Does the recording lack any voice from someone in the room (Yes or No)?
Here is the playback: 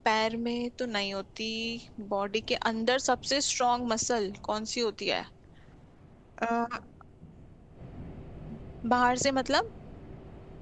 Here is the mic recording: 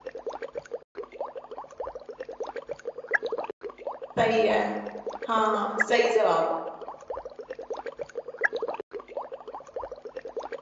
No